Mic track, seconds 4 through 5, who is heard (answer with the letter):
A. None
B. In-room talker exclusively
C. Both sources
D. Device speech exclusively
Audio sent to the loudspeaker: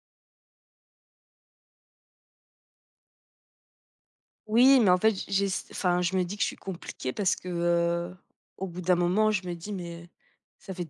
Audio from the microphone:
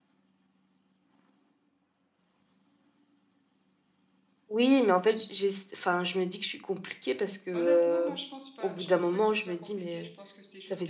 D